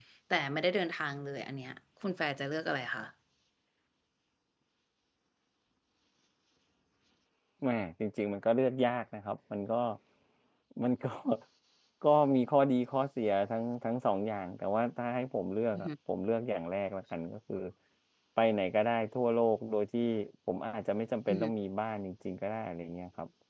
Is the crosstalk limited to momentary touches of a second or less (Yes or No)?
Yes